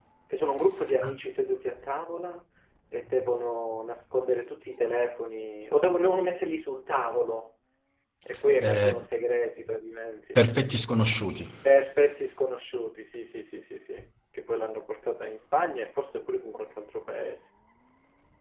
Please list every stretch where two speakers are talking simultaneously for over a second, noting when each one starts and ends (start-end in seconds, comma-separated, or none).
none